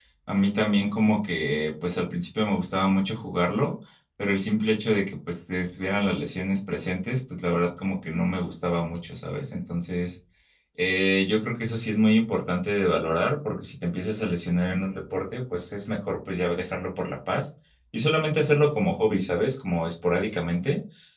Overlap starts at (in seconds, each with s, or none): none